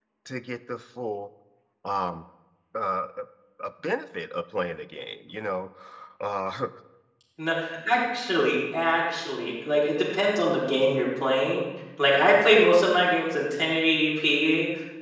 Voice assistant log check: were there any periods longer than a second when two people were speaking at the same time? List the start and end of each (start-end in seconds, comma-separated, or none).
none